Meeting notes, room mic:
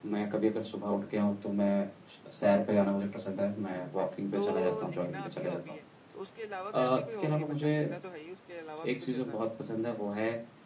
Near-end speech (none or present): present